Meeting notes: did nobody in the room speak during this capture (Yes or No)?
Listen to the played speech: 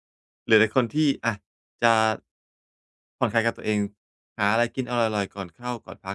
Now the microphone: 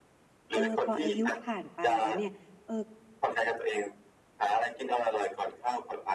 No